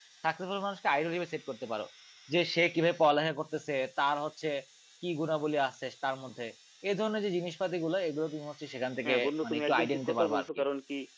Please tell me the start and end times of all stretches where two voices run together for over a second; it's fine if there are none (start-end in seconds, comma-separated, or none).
9.1-10.4